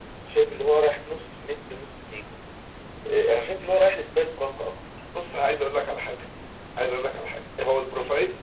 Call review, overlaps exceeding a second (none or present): none